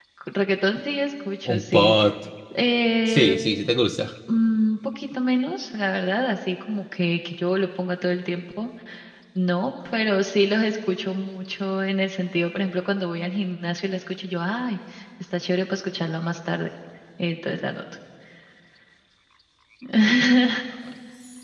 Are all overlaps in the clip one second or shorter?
Yes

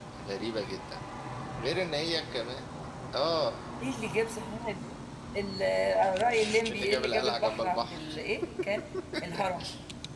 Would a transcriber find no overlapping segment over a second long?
No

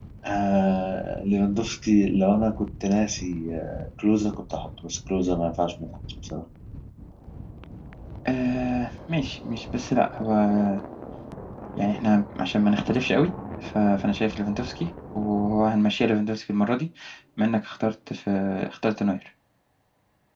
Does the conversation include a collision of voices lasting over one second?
No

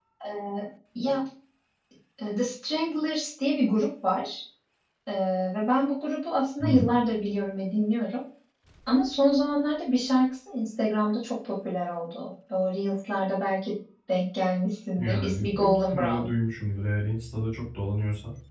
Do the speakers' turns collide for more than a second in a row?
Yes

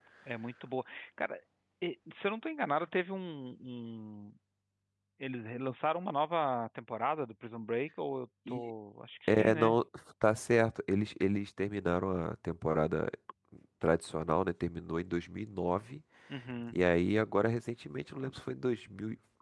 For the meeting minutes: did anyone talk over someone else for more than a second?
No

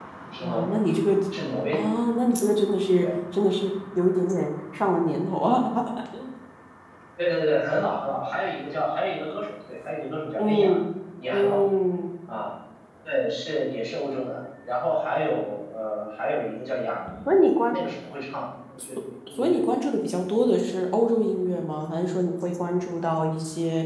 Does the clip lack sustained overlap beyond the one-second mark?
Yes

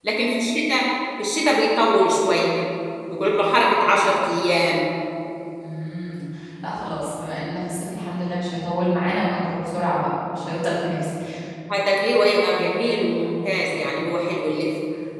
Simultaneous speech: No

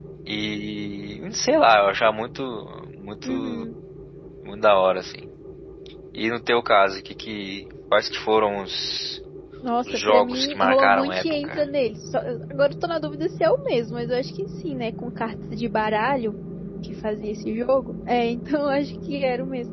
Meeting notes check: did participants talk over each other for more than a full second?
Yes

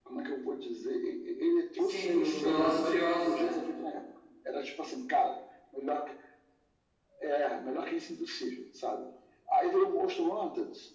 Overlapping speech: Yes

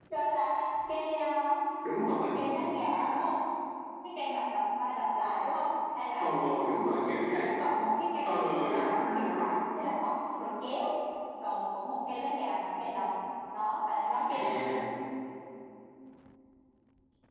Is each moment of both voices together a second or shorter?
No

